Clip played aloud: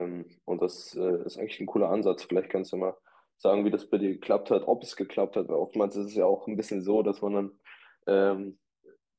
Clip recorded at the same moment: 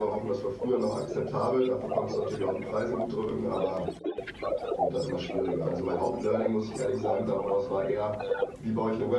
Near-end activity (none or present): present